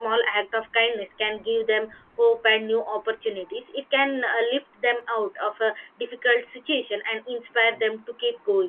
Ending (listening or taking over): listening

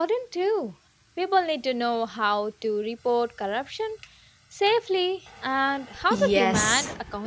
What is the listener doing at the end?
taking over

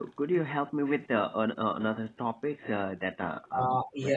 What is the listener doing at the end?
taking over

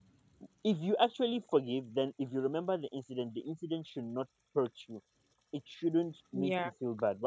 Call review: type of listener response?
listening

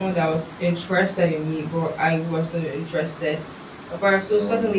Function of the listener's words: listening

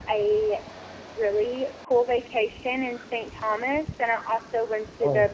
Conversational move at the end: listening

